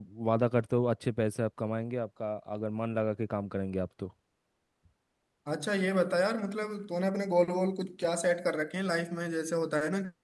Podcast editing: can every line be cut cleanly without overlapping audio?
Yes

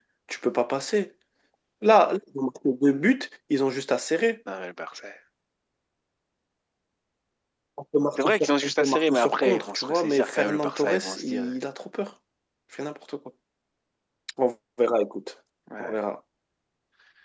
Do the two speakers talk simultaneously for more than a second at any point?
Yes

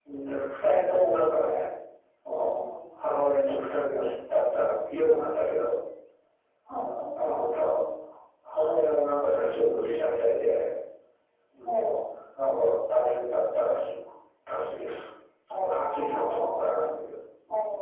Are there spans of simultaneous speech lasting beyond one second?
Yes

